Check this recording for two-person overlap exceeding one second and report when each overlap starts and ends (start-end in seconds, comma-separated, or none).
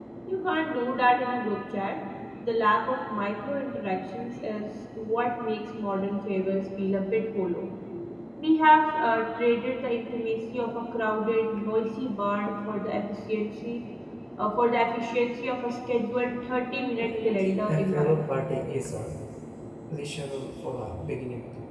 17.0-18.2